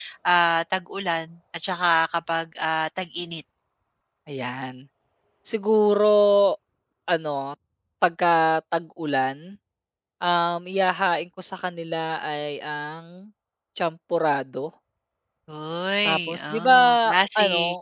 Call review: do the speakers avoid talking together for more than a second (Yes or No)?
No